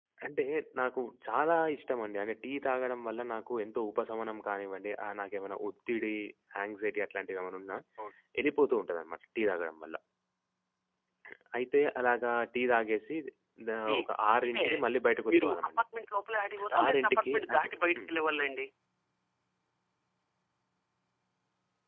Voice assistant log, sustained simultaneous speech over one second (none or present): present